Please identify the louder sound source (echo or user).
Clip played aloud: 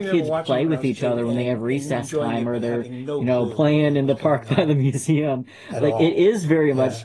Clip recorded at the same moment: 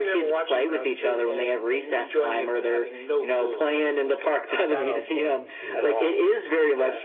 echo